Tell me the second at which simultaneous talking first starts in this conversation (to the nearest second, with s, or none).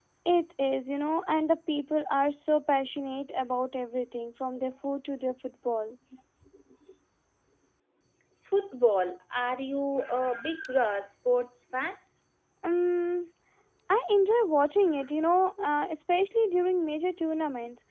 none